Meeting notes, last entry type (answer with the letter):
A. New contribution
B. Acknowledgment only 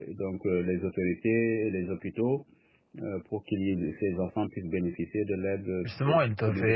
A